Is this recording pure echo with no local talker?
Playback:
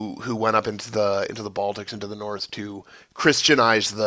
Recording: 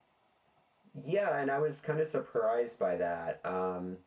No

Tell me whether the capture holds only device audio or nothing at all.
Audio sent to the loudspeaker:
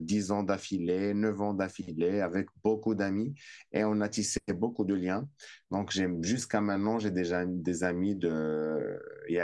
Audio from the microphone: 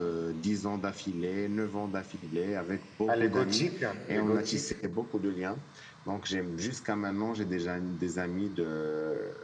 No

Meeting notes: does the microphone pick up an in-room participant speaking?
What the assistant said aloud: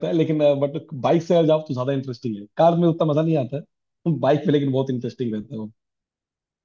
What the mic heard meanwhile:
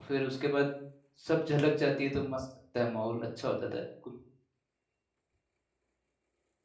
Yes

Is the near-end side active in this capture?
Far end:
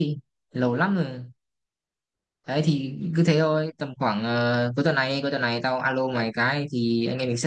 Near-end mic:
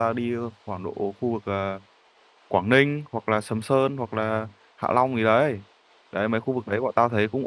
Yes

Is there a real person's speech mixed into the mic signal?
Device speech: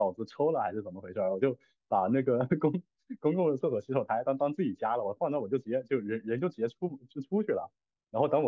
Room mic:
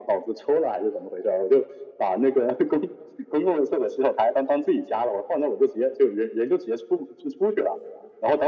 No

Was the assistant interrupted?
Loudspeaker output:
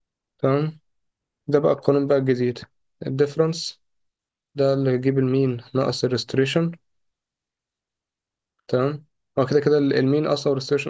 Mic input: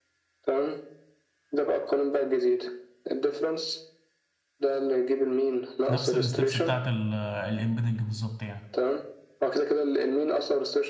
Yes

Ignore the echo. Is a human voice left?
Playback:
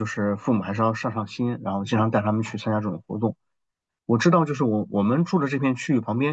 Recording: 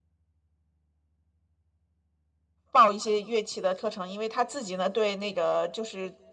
Yes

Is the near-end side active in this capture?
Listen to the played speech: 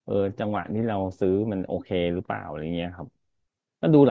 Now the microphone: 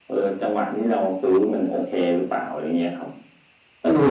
No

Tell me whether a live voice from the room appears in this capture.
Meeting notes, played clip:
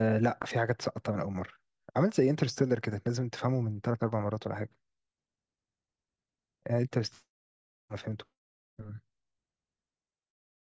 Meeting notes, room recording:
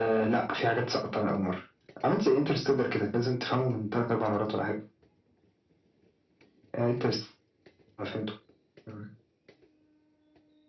No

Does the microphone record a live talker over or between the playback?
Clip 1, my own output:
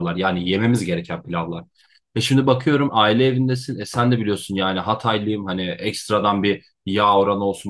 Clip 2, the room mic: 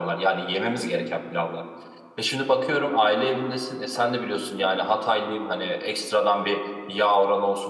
No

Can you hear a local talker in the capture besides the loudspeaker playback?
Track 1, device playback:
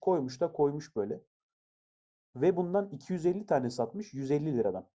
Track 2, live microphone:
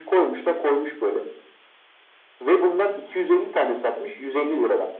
No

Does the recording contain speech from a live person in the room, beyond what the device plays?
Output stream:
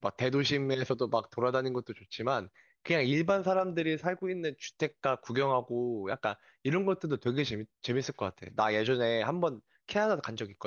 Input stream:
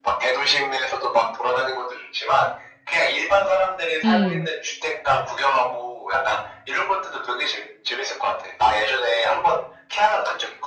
Yes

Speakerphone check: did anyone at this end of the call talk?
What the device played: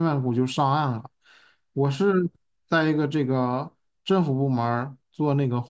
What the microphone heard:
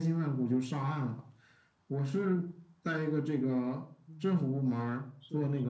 Yes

